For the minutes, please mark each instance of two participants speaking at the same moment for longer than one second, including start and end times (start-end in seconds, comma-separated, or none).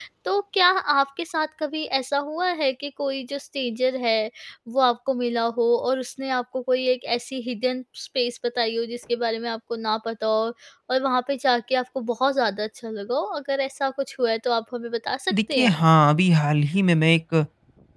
none